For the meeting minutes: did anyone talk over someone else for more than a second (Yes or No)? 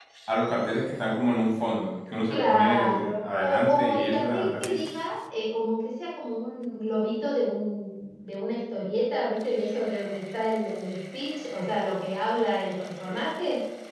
Yes